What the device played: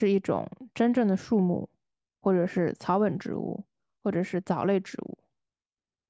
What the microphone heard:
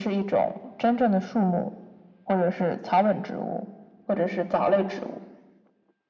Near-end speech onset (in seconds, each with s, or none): none